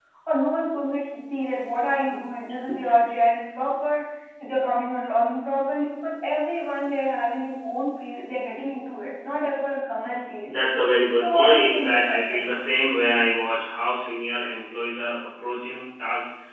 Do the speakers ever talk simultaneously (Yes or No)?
Yes